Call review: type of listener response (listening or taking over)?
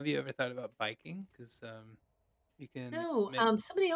taking over